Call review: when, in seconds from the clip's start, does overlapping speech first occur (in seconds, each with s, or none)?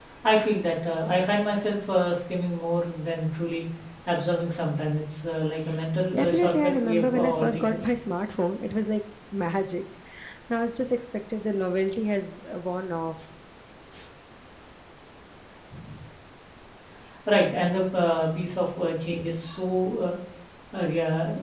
6.1 s